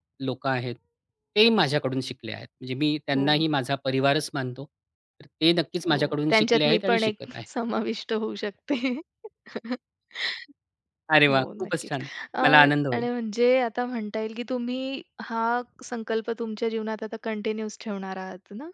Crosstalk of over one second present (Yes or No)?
Yes